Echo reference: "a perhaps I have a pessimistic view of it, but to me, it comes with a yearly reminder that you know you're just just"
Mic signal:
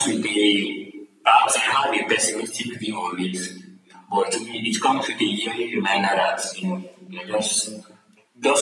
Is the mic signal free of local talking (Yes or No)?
Yes